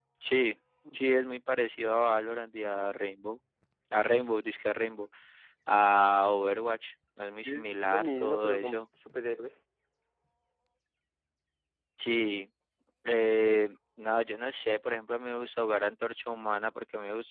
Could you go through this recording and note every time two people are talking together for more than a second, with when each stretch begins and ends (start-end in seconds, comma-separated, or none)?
7.5-8.8